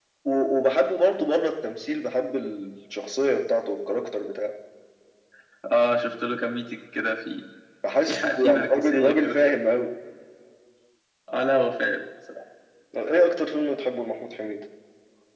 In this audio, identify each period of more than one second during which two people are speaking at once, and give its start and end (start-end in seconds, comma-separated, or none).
8.0-9.4